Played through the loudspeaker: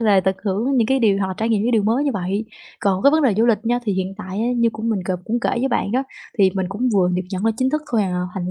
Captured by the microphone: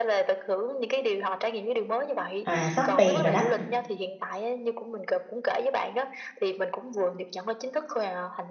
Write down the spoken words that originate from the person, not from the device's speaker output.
à, xót tiền rồi đó,

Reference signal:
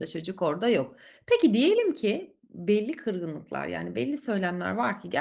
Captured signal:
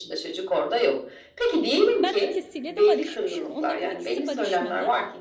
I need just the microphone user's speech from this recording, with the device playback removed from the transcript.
Ben ikisiyle de barışmışım. Onların ikisi barışmadı.

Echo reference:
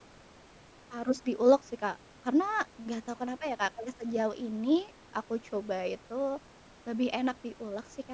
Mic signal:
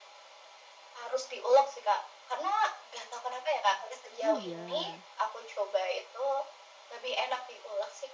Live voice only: Oh iya.

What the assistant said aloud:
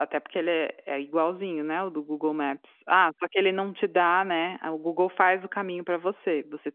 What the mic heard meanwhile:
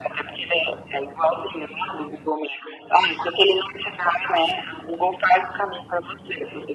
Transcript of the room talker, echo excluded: none

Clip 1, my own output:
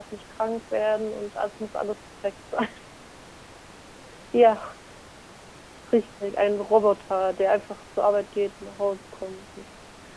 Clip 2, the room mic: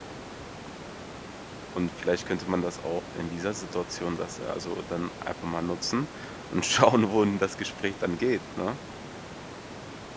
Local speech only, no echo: Und vielleicht könnte man das auch in dieser Situation das also dann einfach mal nutzen und schauen, wohin das Gespräch dann geht, ne?

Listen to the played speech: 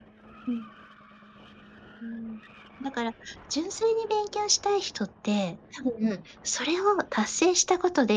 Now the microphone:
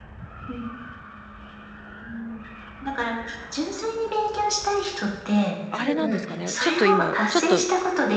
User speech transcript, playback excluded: あれなんですかね、ちょっと今ちょっと、

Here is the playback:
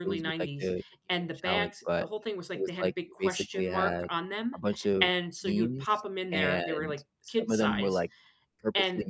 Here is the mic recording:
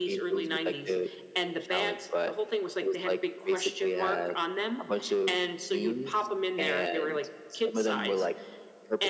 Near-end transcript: none

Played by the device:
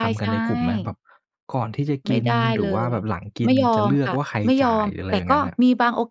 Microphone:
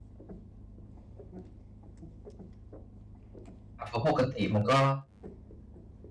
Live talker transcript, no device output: อา เพราะปกติมันก็

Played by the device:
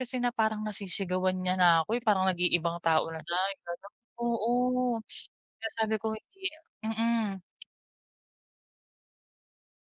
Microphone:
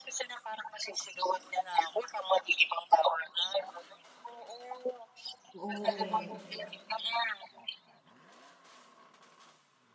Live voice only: Oo nga eh.

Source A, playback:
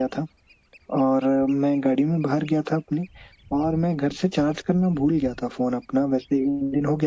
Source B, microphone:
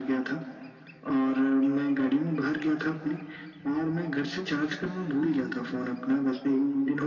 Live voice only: none

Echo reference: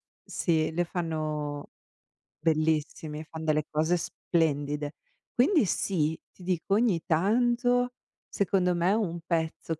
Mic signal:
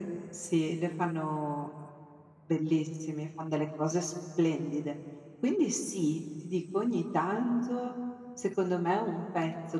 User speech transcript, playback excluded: none

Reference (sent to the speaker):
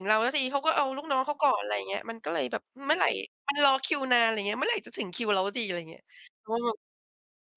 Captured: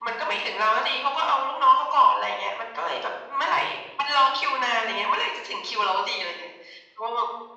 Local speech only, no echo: none

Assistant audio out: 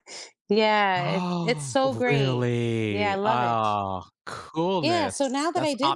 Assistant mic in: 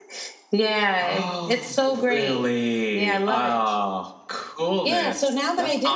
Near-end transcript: none

